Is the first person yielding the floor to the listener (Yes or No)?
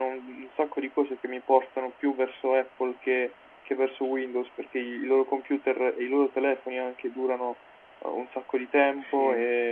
No